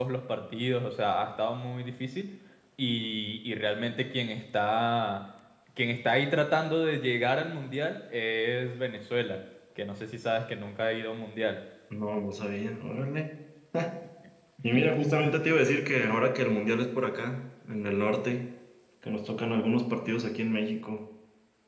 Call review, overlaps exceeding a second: none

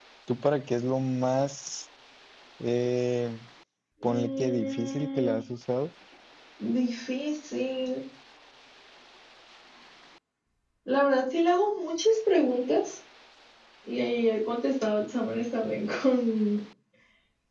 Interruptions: present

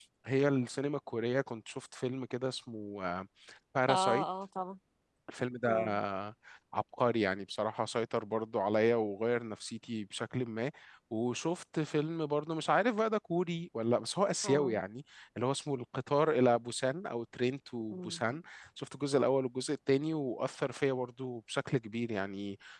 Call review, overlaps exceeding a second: none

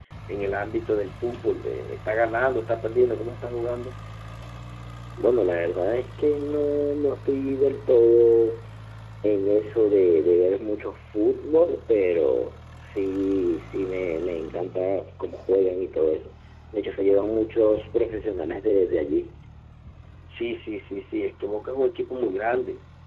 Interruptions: none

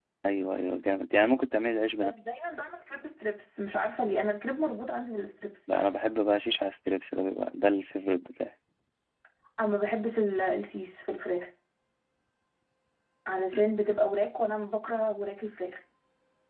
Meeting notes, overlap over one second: none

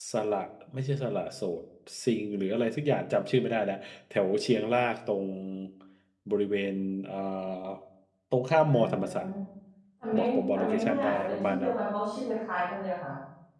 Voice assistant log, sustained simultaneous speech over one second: present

